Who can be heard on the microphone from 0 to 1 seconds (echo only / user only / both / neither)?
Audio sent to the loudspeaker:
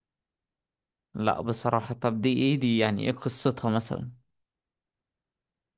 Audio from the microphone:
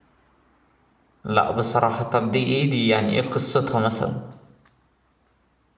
neither